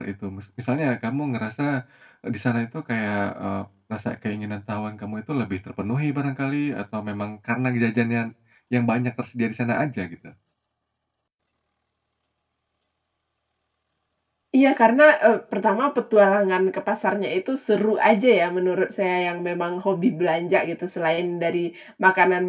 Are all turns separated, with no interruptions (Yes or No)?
Yes